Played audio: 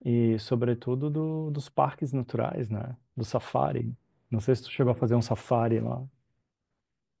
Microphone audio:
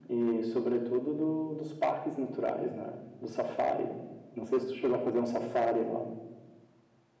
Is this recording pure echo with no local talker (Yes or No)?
Yes